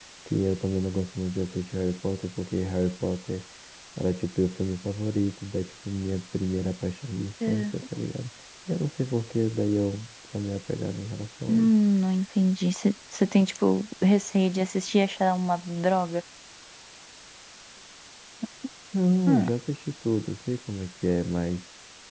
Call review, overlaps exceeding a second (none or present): none